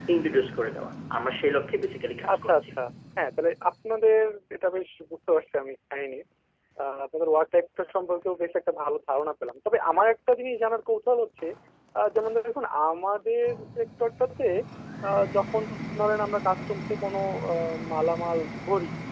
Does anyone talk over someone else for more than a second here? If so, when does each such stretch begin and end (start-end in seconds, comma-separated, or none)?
none